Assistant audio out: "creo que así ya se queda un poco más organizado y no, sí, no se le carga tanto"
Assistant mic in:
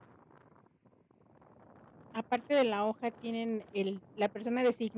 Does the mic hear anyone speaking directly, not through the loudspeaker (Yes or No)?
Yes